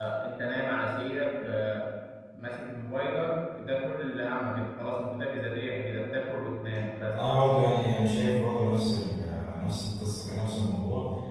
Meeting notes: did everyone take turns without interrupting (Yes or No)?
Yes